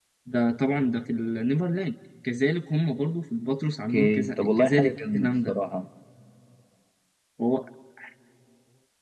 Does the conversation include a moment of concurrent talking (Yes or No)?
Yes